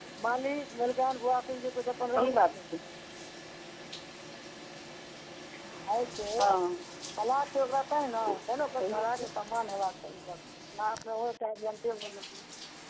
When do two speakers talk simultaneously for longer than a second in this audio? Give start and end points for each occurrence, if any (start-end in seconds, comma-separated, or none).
none